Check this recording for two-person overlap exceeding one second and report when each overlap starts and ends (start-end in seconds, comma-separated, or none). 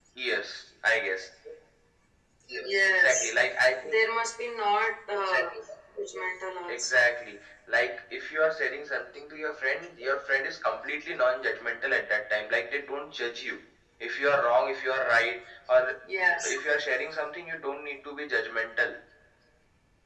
none